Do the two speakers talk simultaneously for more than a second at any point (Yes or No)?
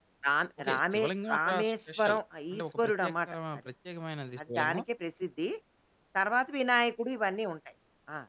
Yes